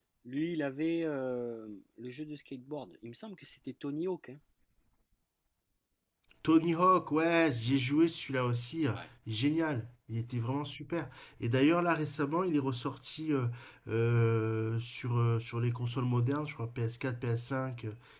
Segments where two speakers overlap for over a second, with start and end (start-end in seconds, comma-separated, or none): none